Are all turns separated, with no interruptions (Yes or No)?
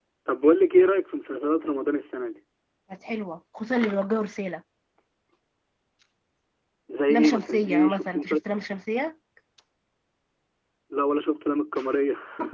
No